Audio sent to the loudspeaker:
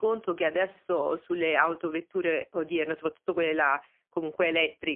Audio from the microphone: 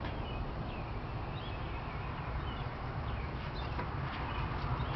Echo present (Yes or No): No